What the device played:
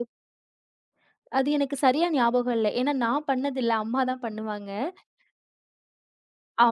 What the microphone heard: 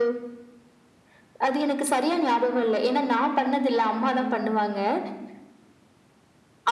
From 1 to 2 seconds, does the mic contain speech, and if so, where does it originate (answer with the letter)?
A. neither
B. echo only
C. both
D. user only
B